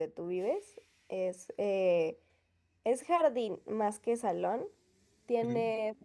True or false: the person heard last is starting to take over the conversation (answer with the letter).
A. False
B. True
A